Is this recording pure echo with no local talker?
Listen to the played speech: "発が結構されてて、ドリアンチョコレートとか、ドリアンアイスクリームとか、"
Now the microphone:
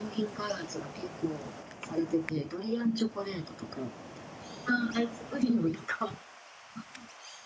Yes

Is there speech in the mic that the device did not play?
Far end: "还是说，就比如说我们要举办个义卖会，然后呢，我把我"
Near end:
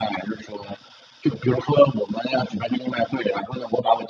No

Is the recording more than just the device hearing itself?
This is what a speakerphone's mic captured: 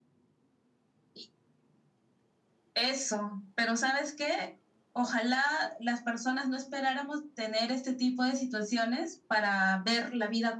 No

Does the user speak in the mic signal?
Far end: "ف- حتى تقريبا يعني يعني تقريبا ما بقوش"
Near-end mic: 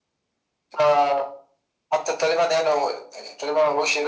No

